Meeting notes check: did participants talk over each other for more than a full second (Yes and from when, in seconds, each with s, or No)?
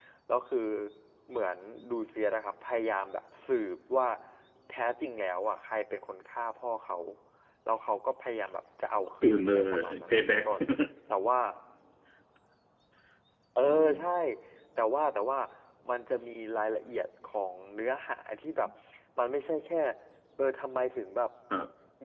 Yes, from 9.2 s